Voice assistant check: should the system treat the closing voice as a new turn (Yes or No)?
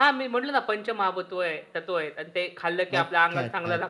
Yes